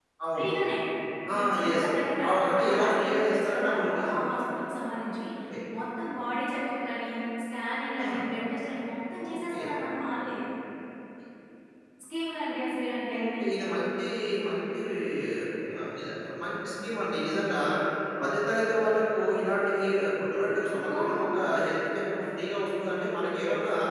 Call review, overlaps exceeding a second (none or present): present